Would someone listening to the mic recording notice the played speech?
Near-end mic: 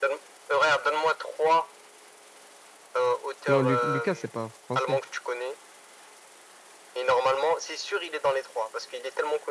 Yes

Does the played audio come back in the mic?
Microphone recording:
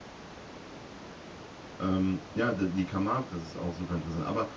No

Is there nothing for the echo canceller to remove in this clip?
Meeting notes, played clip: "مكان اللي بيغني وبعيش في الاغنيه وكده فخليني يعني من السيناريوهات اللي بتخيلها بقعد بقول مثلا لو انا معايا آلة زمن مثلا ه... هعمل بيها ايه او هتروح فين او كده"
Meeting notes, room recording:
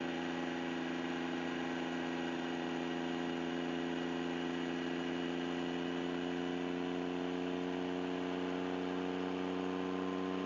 Yes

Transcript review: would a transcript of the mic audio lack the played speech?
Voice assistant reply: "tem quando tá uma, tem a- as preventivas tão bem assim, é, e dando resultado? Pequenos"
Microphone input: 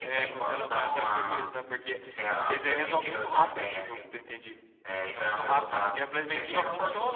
No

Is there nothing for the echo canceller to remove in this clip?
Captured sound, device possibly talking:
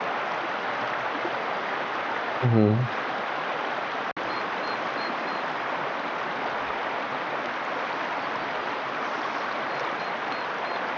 Yes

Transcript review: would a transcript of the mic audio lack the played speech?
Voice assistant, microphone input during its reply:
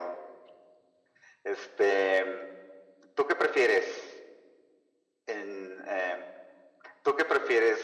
No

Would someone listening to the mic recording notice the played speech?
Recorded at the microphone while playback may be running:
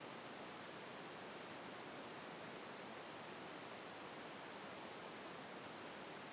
No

